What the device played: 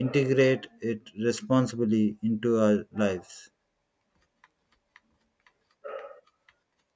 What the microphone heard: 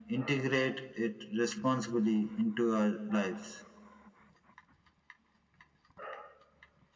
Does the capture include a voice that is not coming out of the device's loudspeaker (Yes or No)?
No